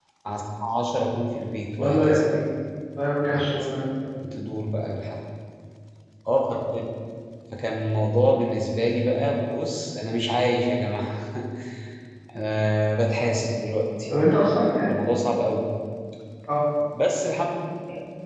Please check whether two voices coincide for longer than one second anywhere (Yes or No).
No